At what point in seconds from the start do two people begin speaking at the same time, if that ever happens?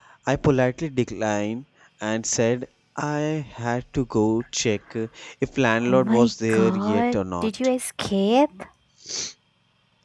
5.9 s

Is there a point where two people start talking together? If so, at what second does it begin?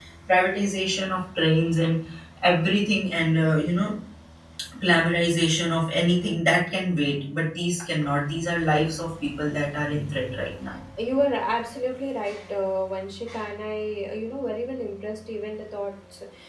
none

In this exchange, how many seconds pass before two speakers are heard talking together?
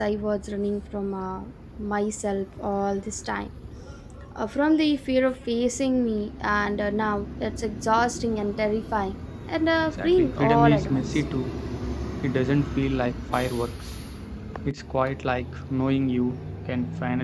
9.8 s

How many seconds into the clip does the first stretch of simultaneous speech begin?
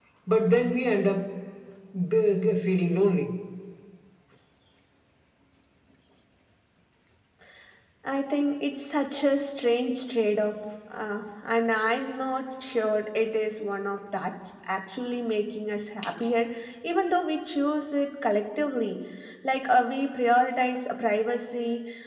none

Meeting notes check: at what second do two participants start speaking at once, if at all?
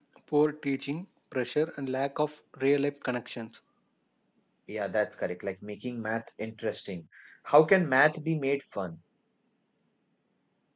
none

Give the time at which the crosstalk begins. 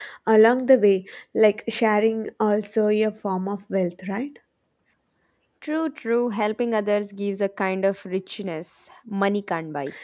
none

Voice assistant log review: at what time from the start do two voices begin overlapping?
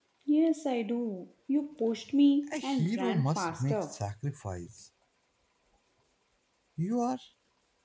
2.5 s

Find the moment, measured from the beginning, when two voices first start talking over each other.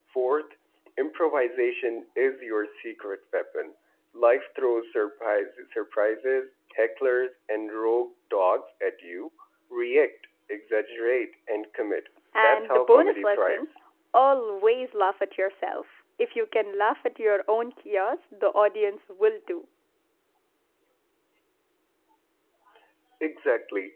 12.3 s

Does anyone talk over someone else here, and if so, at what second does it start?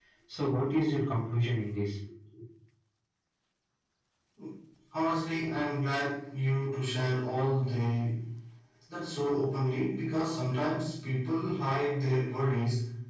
none

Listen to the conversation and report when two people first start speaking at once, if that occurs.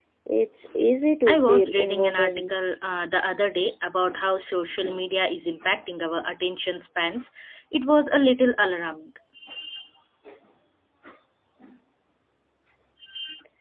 1.3 s

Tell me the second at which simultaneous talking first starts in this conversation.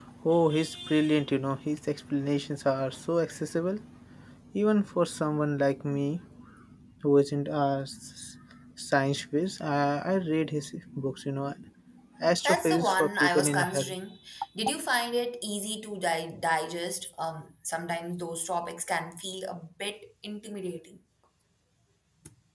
12.4 s

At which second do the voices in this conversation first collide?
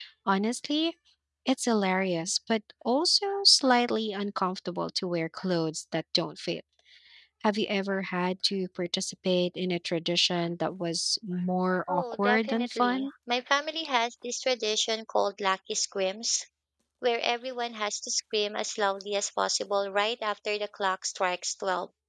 11.9 s

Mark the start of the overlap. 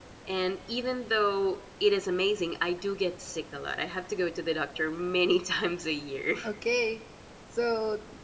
none

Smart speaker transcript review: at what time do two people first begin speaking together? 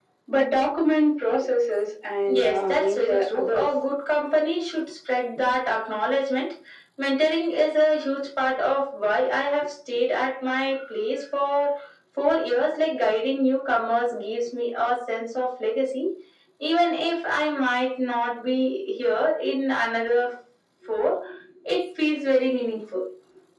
2.2 s

